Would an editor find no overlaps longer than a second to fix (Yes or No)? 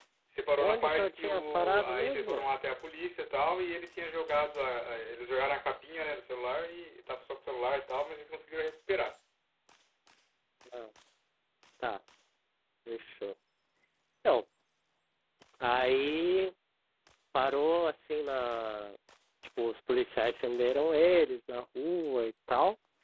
No